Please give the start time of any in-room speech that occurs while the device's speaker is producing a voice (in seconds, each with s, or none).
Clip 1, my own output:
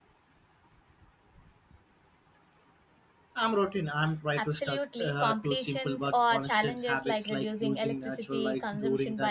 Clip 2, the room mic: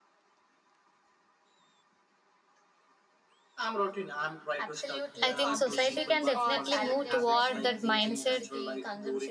5.2 s